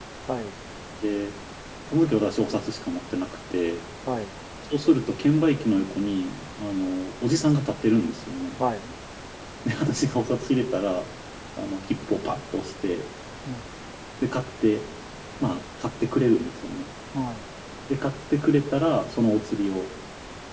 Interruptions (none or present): none